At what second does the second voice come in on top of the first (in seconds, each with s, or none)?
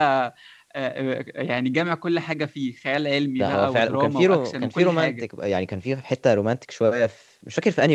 3.4 s